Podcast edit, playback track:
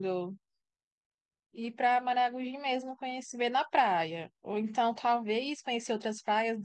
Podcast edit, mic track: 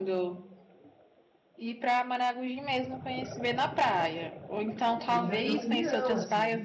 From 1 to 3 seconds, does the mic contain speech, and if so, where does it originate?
echo only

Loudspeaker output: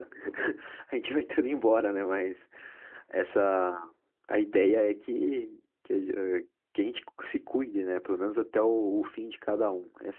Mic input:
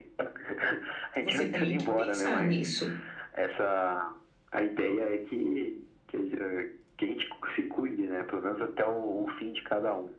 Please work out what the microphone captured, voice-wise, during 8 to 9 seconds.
echo only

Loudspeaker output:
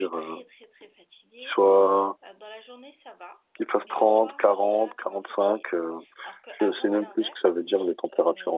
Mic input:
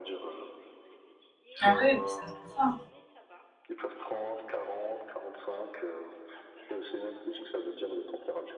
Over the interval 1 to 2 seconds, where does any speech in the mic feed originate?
both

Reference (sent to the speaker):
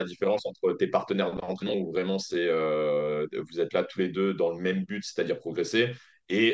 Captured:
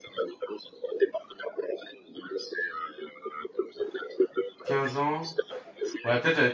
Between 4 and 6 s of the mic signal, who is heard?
both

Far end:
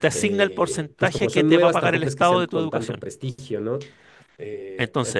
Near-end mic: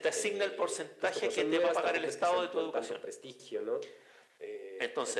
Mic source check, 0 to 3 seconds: echo only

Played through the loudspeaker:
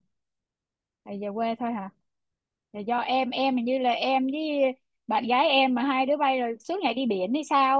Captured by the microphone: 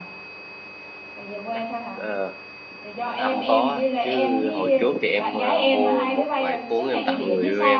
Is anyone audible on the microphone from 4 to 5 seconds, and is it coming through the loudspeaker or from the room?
both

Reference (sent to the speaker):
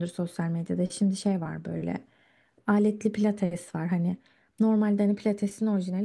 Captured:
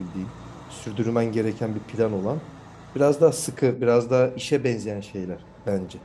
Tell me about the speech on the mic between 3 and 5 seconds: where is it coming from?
user only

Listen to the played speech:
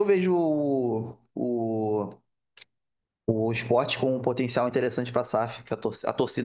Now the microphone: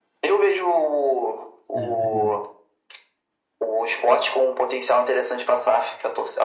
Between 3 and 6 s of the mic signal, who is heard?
echo only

